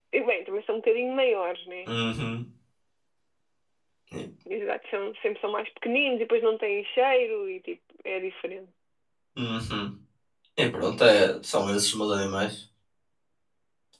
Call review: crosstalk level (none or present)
none